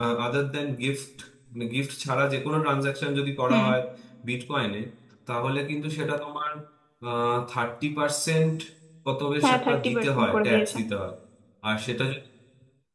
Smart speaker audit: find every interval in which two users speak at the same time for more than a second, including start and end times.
9.4-10.8

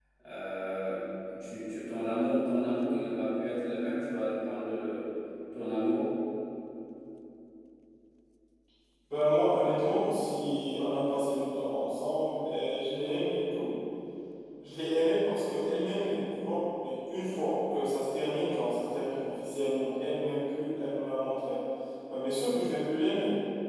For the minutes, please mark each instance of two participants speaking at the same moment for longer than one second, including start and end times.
none

